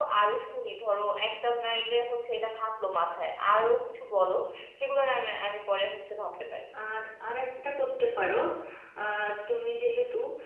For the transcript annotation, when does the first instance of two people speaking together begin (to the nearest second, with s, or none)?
none